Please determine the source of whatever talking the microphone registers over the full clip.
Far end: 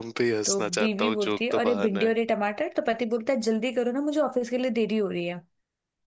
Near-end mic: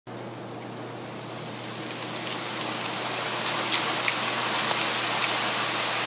neither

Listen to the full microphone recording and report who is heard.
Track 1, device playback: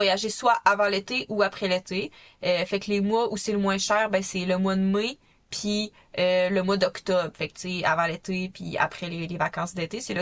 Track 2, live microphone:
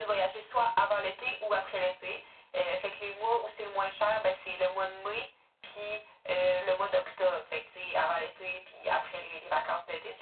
echo only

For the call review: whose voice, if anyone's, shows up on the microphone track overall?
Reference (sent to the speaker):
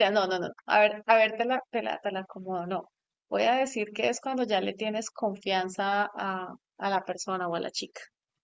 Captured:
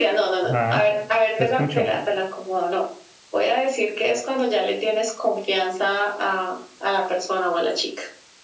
both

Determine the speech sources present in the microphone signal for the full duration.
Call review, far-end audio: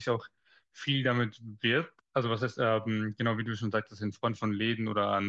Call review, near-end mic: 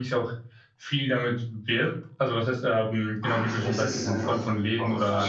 both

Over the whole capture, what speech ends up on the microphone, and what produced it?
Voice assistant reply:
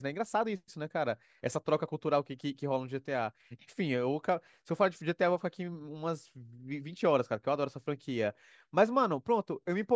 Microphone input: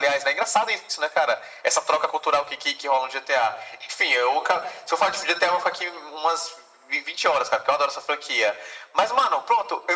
echo only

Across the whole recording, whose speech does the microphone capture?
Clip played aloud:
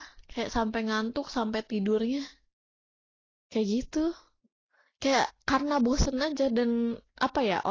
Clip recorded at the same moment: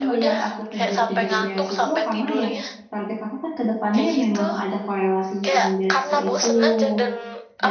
both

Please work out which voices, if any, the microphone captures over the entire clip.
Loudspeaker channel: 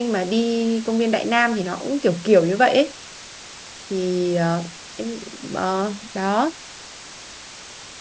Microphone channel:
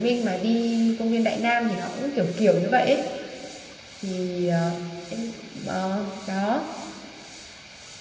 echo only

